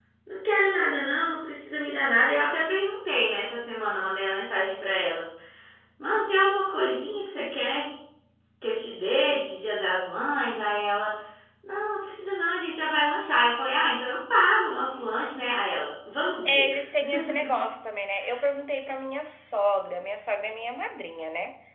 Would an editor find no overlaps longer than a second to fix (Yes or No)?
Yes